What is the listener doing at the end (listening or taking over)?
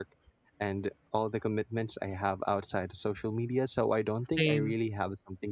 listening